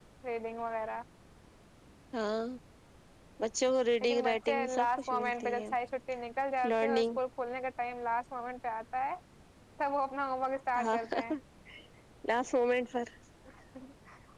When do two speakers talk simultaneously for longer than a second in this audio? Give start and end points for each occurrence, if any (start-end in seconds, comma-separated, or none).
4.0-5.6